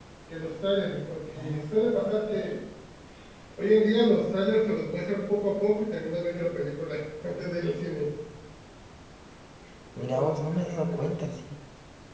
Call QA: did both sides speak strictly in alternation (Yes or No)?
No